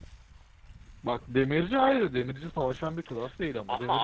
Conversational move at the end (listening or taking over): listening